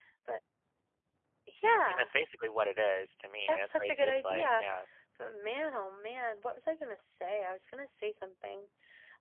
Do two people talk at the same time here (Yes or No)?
Yes